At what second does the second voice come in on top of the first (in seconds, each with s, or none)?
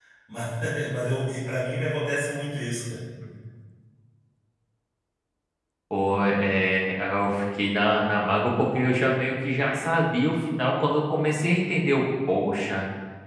none